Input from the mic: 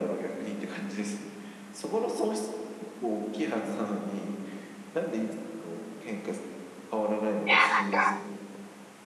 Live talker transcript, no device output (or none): いや、なんか、